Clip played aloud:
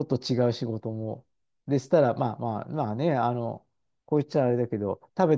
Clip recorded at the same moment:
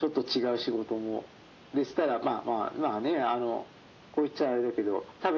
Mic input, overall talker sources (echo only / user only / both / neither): echo only